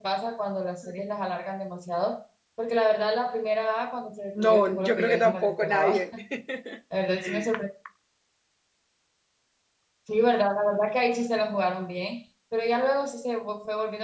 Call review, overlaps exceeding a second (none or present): present